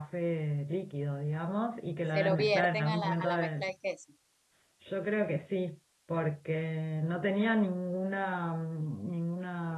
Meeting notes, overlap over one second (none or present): present